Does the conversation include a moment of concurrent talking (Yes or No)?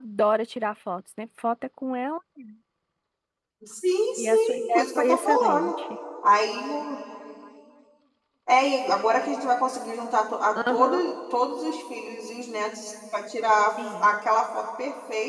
Yes